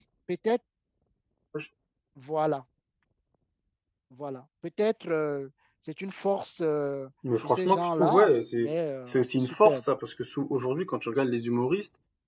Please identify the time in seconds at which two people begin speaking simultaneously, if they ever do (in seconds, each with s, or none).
7.2 s